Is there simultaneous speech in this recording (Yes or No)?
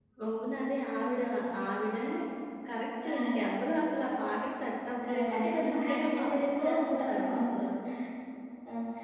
Yes